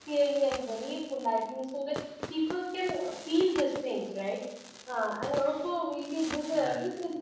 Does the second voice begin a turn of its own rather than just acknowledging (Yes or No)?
No